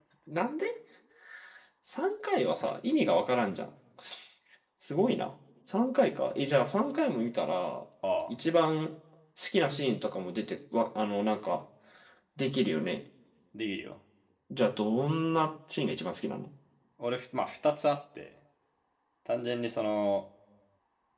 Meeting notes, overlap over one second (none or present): none